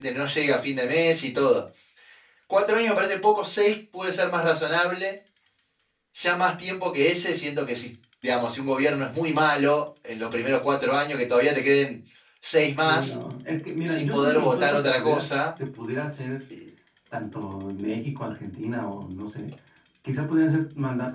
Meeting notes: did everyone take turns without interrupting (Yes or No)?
No